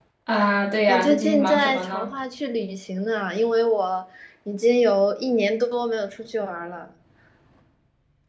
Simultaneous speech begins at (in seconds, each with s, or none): 0.9 s